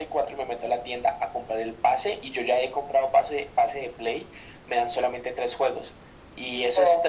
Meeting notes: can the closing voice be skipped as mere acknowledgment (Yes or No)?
Yes